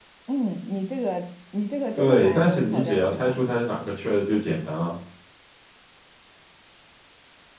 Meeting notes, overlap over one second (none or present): present